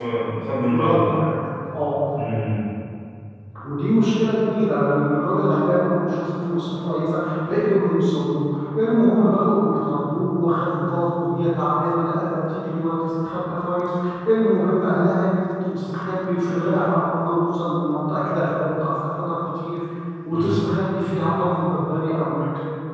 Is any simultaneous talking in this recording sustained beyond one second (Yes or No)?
No